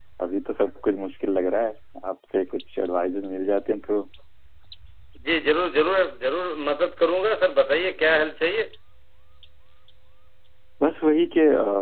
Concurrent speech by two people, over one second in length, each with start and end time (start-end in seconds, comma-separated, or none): none